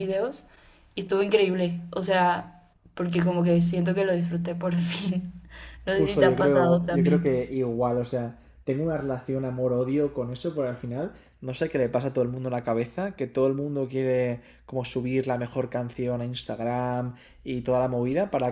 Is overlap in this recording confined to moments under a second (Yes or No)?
No